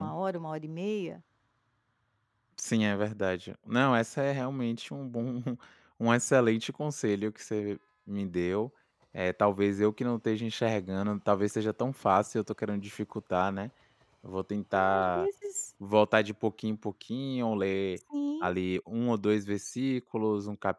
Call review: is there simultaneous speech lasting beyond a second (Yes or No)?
No